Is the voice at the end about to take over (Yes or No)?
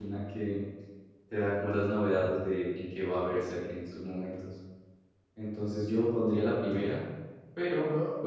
No